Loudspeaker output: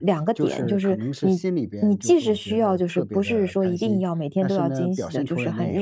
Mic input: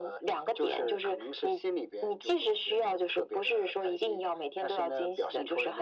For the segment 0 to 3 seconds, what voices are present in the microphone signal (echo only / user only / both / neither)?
echo only